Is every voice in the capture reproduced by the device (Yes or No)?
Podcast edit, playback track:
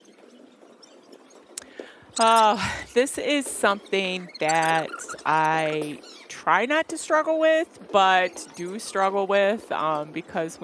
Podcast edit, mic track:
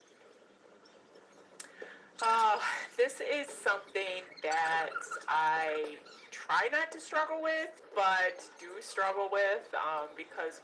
Yes